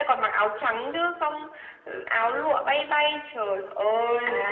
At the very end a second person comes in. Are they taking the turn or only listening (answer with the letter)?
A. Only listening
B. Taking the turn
B